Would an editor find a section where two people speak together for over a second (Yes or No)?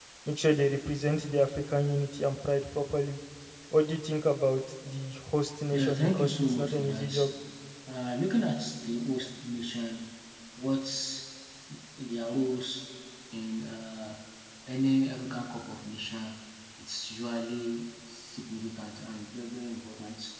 Yes